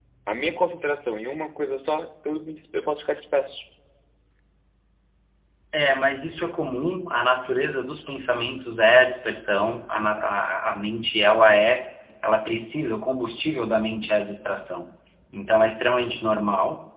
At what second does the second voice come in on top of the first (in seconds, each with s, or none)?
none